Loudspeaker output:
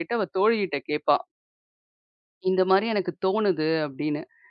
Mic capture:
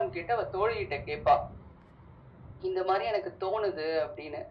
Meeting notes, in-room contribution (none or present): none